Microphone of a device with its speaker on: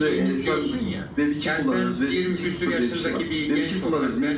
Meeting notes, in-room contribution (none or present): none